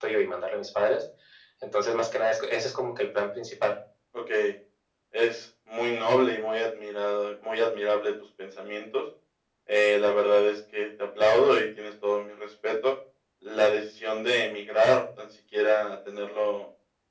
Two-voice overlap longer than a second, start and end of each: none

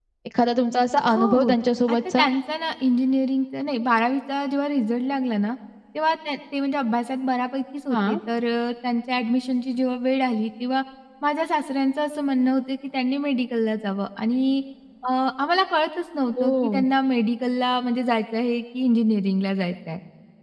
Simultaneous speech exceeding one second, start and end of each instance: none

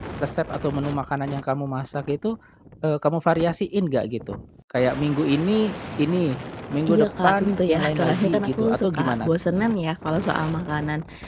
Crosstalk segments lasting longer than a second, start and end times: 6.9-9.3

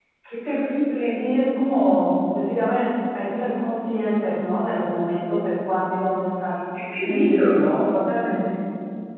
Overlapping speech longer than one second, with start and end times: none

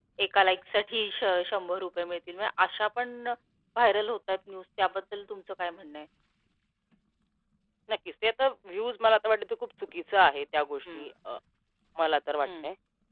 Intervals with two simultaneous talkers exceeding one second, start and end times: none

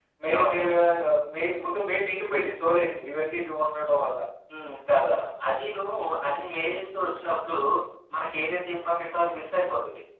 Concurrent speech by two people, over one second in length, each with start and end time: none

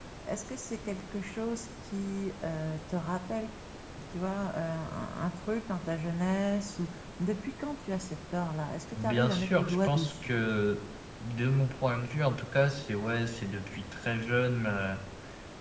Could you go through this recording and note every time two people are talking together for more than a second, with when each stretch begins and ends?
8.9-10.3

